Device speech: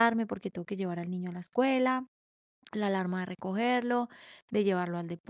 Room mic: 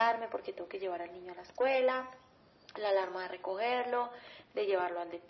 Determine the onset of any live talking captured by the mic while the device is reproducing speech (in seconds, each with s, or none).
none